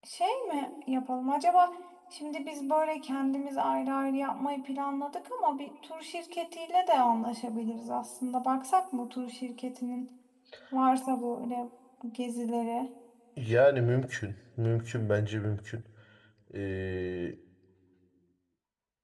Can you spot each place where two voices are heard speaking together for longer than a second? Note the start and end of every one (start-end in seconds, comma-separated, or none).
none